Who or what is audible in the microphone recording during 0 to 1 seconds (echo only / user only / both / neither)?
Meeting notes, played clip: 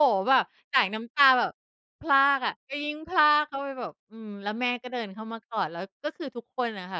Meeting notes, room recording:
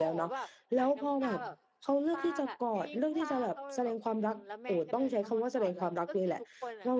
both